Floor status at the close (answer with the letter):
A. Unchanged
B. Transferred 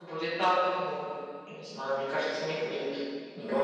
B